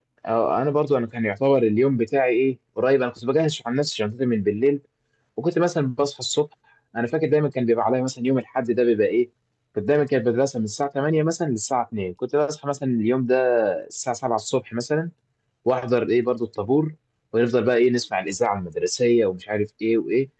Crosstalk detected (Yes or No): No